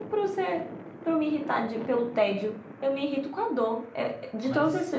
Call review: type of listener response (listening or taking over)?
listening